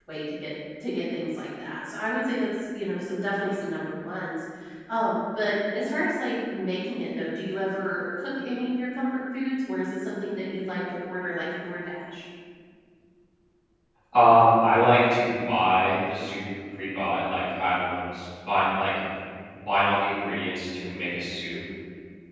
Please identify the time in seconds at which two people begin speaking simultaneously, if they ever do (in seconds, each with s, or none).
none